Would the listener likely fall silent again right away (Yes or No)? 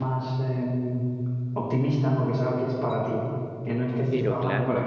Yes